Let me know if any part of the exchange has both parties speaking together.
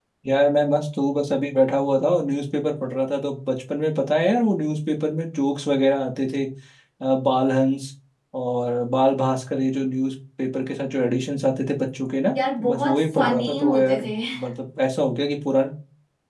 Yes, from 12.4 s

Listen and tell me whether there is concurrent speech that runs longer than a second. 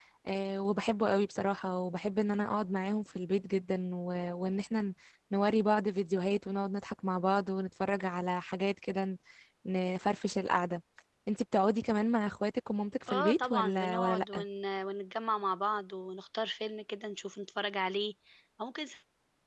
Yes, from 13.1 s

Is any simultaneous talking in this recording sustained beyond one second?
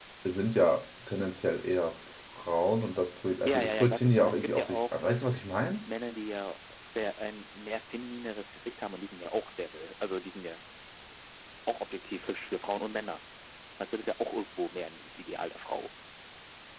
Yes, from 3.5 s

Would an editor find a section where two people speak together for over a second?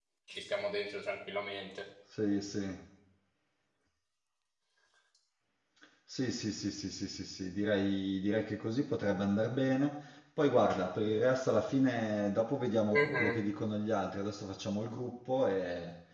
No

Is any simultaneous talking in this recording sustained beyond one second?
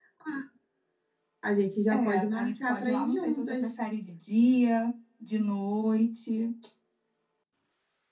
Yes, from 1.9 s

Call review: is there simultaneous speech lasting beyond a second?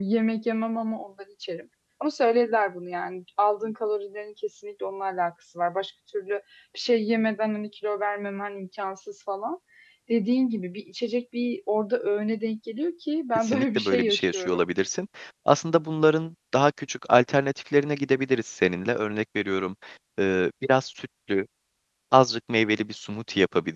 Yes, from 13.4 s

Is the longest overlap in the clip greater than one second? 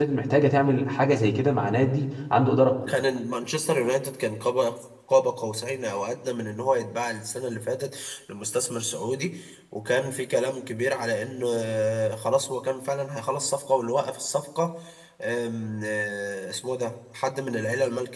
No

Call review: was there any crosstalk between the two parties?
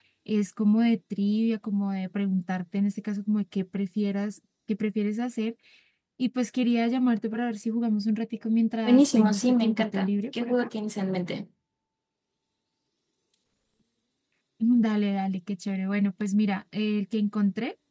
Yes, from 8.8 s

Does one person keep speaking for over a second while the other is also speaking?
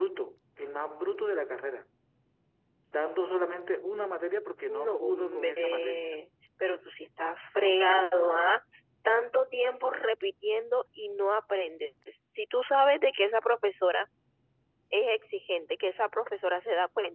Yes, from 4.7 s

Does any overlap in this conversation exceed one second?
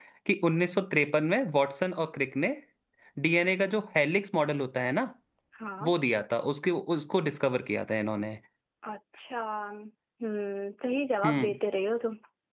No

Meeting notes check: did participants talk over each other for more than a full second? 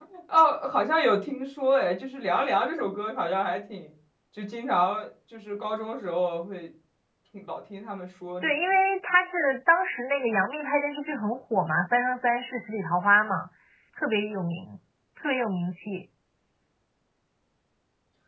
No

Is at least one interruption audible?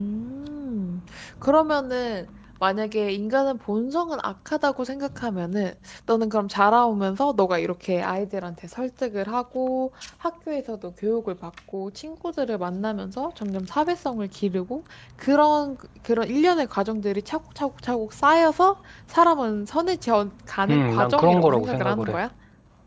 Yes, from 20.7 s

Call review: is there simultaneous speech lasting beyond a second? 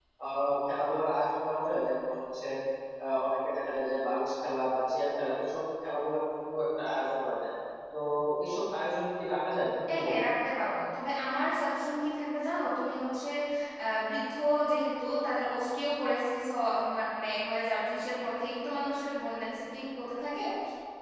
No

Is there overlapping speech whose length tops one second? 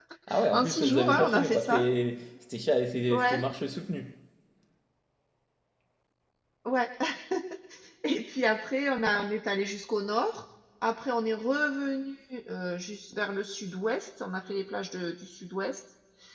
Yes, from 0.5 s

